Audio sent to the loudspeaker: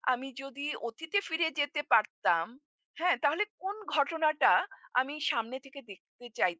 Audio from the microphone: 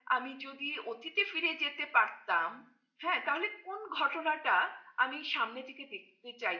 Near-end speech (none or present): none